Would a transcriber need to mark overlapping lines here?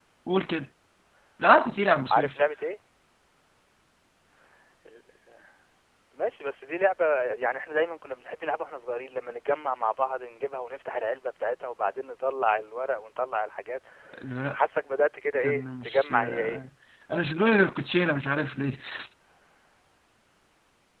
Yes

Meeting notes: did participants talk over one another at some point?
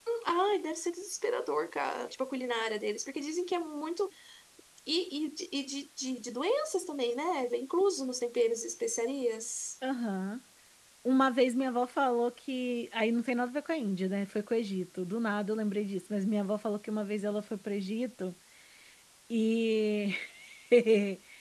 No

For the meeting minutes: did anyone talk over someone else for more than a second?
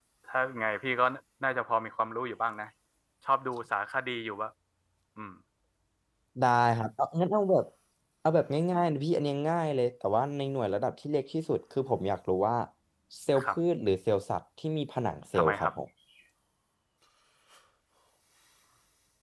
No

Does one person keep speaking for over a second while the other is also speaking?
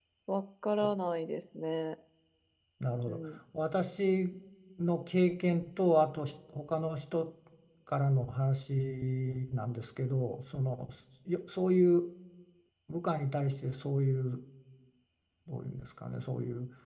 No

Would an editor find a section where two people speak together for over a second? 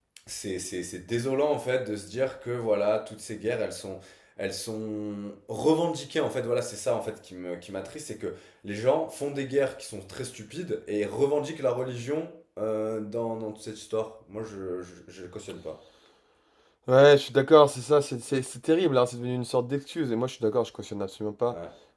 No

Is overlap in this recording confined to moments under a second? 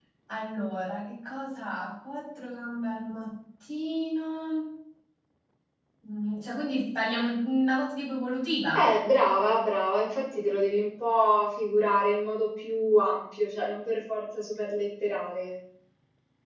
Yes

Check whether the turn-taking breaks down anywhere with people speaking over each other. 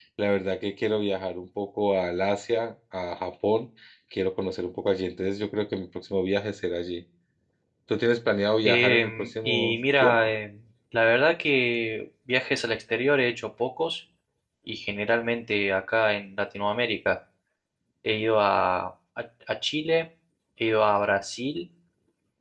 Yes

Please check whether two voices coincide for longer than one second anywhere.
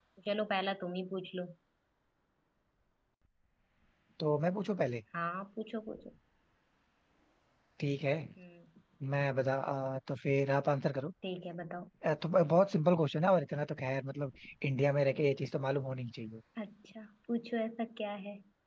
No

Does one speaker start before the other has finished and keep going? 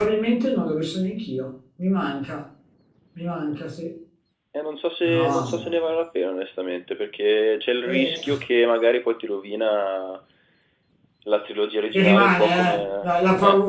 Yes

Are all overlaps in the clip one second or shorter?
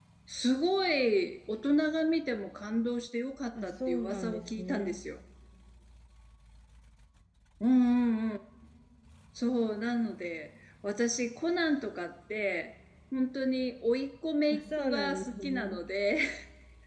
No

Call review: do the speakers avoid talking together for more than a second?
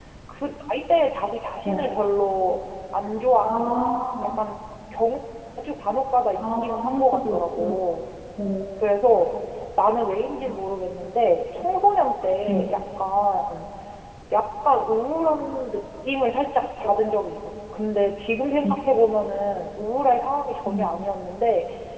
No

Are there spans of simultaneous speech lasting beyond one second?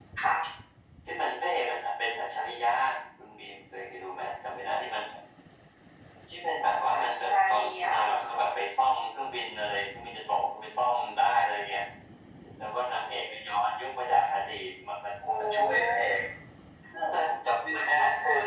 Yes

